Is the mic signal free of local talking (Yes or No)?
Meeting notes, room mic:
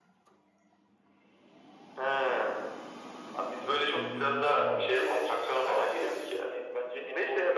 No